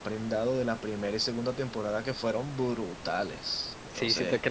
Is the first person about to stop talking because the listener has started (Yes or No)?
Yes